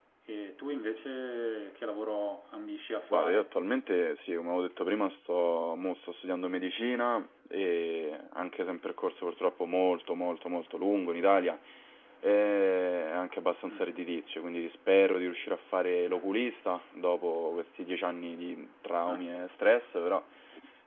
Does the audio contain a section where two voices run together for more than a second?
No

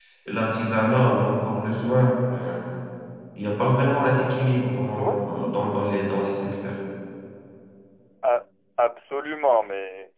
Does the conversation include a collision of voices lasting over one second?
No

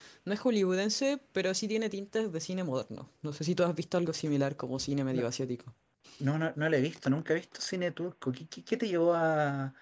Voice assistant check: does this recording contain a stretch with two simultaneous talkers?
No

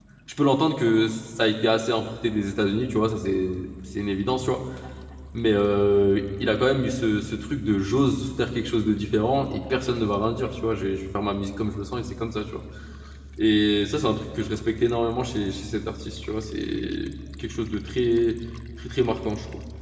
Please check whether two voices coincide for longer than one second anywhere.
No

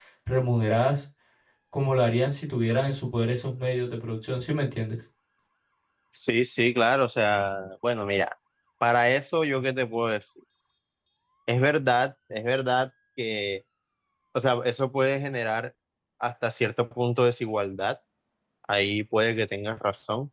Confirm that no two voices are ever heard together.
Yes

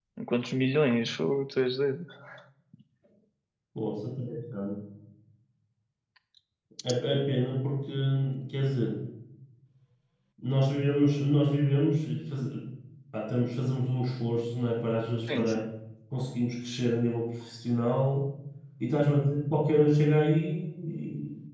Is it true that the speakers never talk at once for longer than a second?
Yes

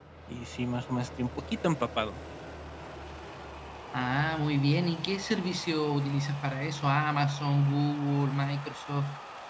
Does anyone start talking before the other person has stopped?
No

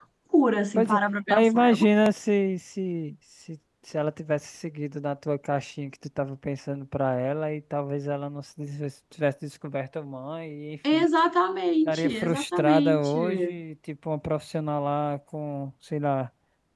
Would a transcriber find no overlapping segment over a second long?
No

